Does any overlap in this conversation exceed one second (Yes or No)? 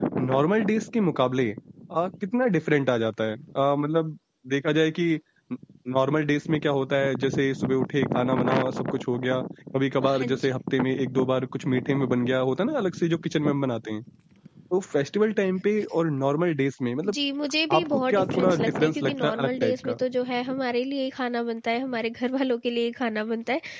Yes